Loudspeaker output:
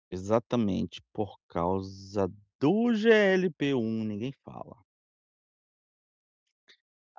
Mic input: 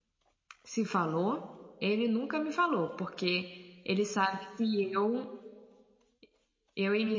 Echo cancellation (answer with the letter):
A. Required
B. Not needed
B